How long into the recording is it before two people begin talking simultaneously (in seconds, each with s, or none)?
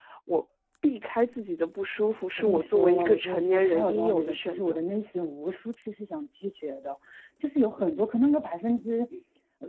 2.4 s